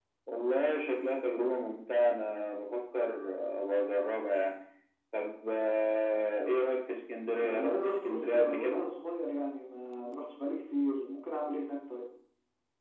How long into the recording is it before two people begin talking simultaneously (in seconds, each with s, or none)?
7.3 s